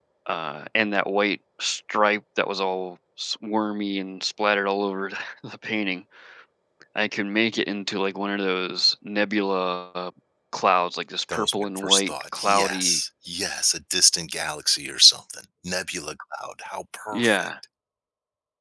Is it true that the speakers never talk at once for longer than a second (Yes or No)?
No